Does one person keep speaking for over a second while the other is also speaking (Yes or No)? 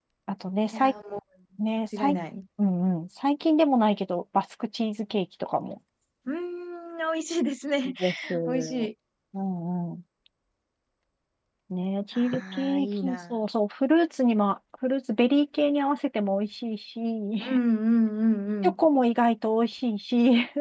Yes